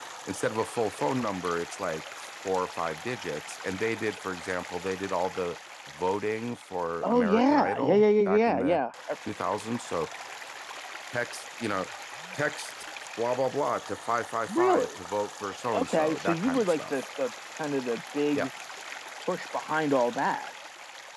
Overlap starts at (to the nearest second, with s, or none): 7 s